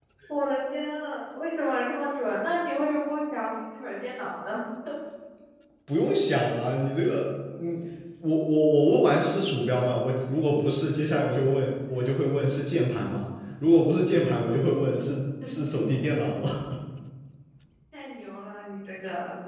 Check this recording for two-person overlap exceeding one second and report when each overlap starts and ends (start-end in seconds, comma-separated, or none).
none